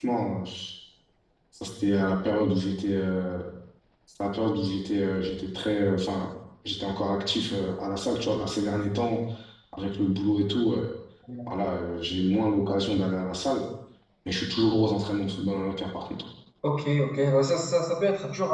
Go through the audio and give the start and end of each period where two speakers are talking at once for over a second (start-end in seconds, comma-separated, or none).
none